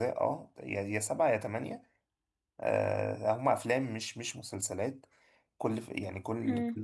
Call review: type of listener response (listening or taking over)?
listening